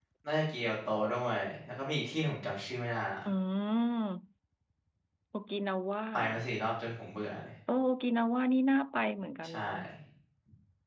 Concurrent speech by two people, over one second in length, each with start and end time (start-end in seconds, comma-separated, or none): none